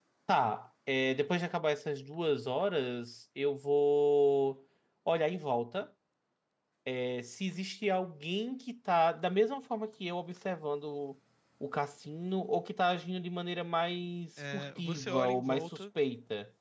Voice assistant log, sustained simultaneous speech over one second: present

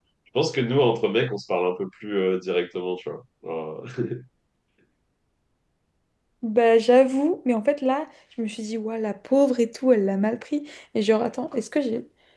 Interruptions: none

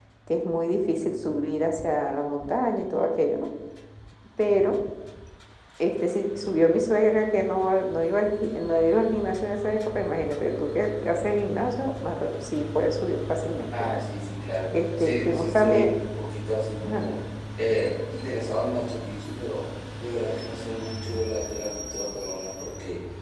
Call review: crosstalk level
present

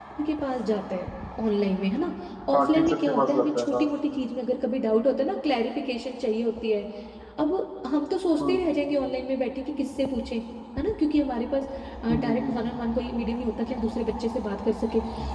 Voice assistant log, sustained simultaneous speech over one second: present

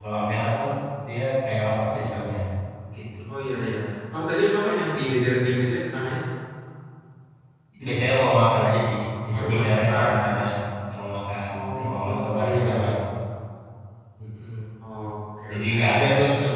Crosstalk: present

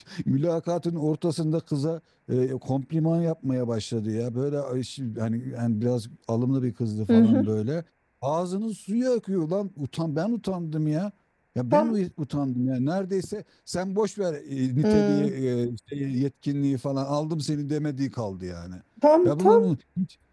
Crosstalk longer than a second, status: none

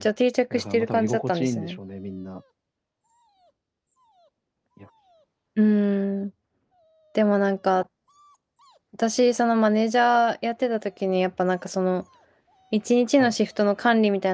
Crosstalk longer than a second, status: present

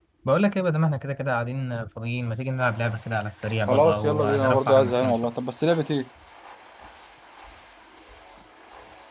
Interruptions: present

